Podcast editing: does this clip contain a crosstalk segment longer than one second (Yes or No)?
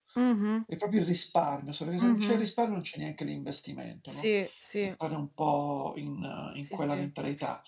No